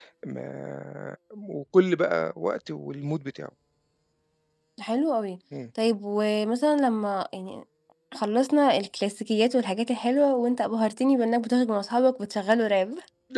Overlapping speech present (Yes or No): No